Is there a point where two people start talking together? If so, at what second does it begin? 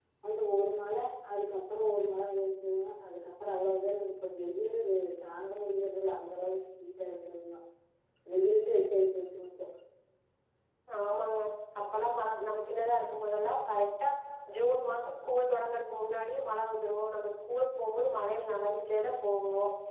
none

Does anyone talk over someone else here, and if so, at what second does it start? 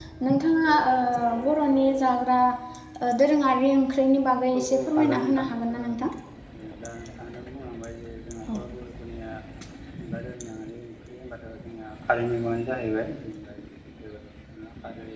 4.5 s

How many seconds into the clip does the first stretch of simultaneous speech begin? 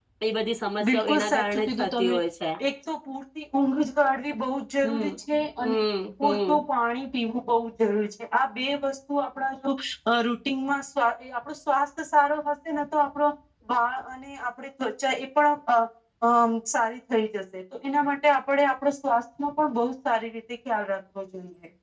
0.8 s

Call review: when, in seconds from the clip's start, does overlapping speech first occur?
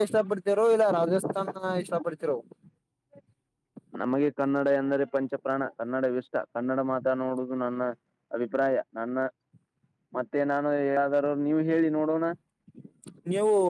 none

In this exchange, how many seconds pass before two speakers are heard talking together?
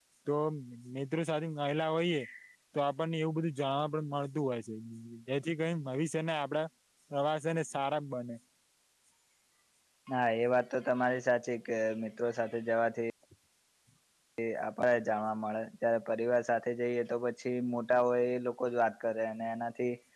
none

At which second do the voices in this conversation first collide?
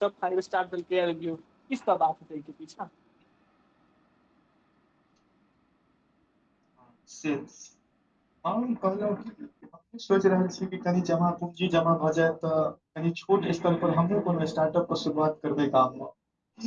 none

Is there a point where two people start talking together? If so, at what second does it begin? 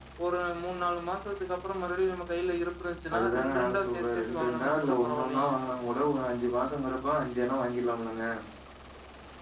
3.1 s

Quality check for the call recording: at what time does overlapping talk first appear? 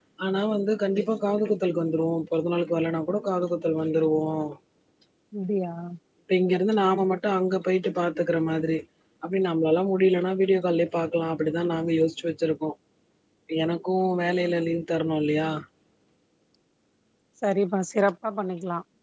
none

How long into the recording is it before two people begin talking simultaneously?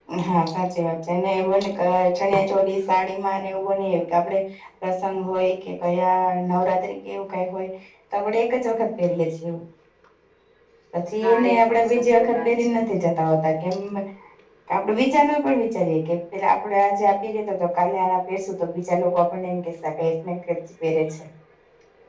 11.2 s

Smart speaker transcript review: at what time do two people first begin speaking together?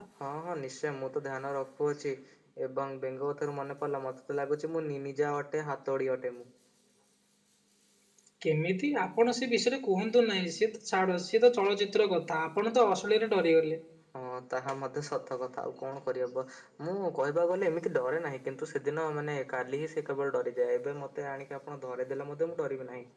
none

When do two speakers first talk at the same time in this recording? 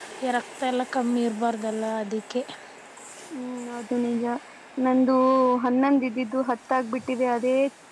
none

